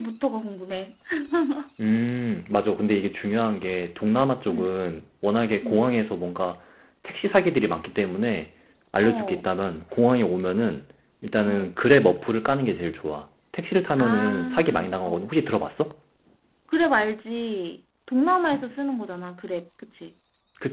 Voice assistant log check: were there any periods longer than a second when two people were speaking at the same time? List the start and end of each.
14.0-15.2

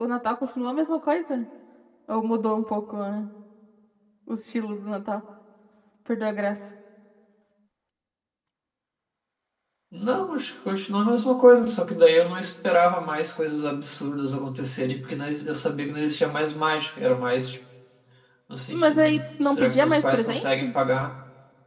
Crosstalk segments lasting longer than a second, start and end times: 18.7-20.7

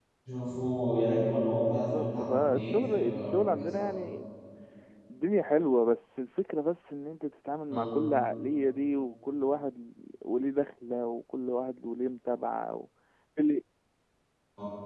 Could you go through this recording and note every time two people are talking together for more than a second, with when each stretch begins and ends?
1.7-4.0

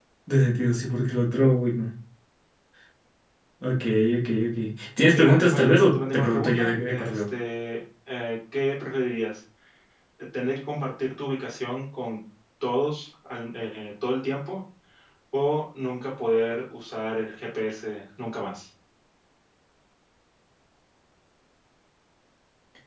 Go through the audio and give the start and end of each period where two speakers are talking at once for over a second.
5.1-7.3

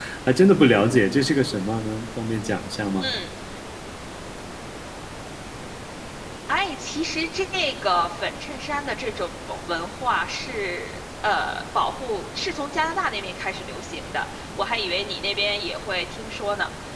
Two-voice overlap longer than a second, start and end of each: none

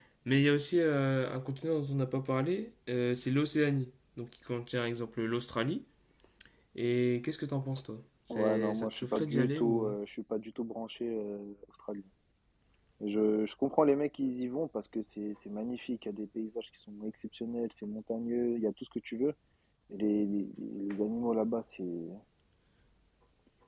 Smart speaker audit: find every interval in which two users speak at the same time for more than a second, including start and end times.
8.3-10.0

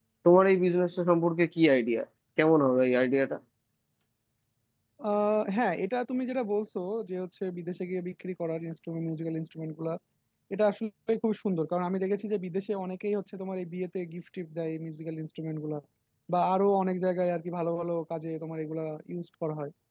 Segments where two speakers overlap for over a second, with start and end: none

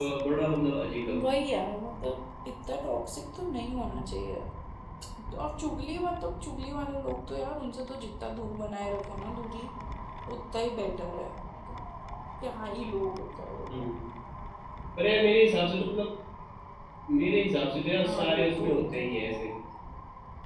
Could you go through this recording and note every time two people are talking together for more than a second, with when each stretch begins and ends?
18.0-19.2

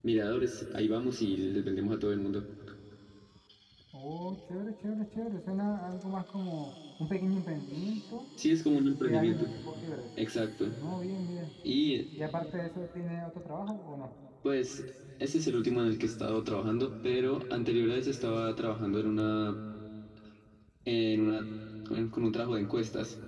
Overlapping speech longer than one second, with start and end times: none

